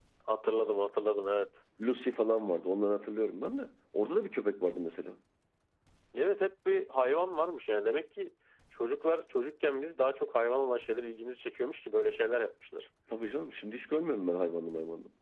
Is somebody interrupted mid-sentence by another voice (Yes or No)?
No